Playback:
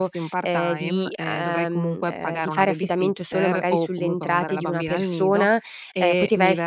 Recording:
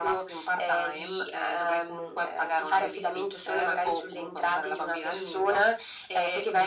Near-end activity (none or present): none